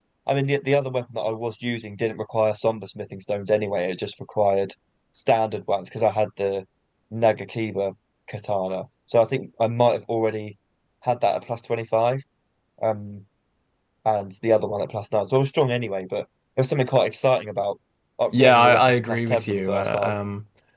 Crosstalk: present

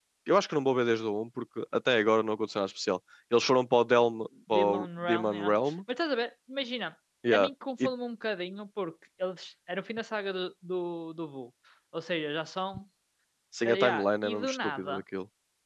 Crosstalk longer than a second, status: present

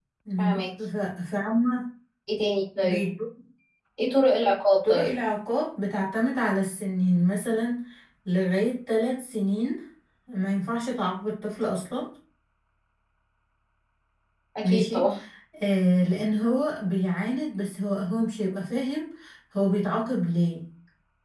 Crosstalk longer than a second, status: none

